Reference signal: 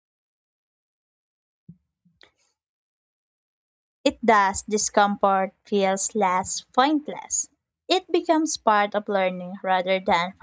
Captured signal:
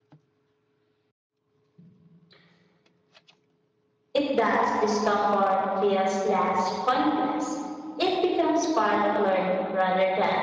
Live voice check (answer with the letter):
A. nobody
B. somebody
A